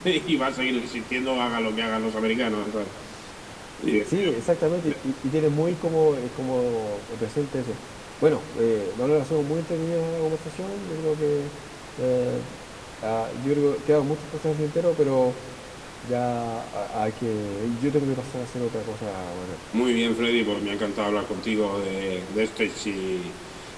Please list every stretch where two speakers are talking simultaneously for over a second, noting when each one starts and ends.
none

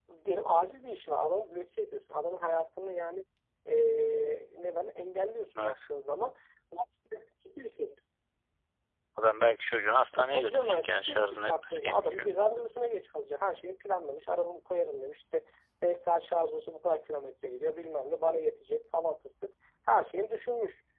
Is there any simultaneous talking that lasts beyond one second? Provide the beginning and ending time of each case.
10.2-12.3

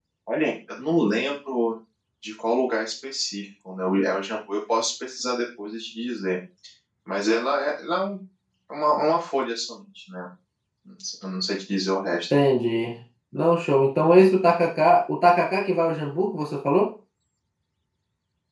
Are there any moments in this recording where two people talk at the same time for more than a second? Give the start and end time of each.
none

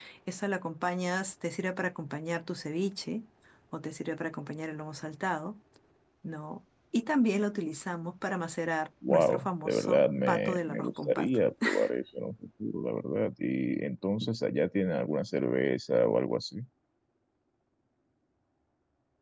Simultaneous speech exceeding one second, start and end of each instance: 9.1-11.3

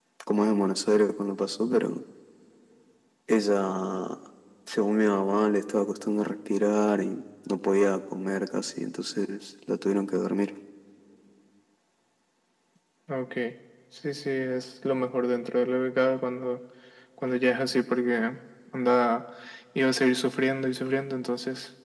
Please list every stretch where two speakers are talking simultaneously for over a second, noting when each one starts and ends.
none

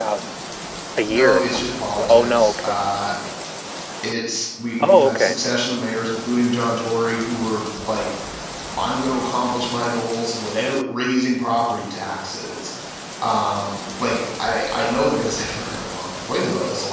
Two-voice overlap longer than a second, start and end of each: 1.0-2.8

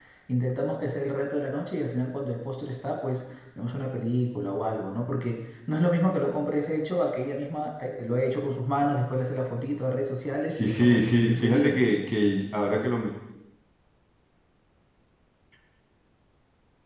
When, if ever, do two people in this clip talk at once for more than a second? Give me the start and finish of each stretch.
10.5-11.8

